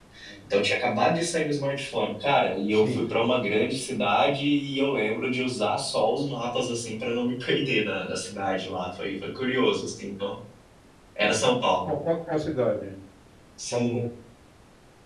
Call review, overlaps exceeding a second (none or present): none